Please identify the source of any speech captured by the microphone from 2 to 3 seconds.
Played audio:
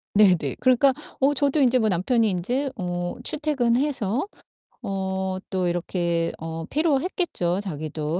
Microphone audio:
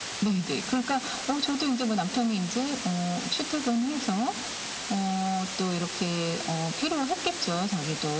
echo only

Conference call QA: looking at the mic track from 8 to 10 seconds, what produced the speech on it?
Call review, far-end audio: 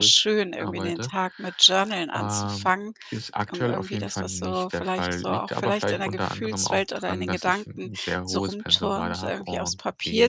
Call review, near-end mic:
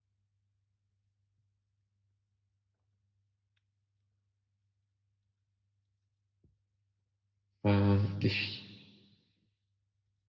user only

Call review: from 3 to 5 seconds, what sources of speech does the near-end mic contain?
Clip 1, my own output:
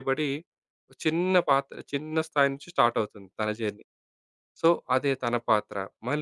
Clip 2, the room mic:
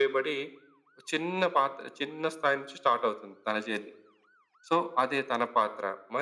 echo only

